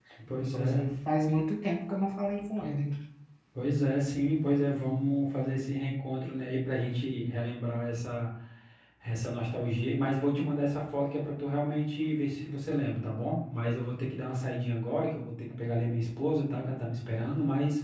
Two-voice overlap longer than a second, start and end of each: none

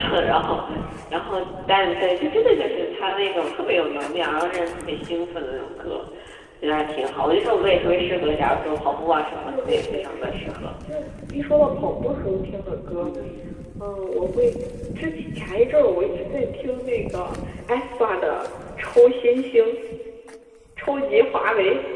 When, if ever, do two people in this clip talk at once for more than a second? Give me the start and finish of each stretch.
8.8-10.3

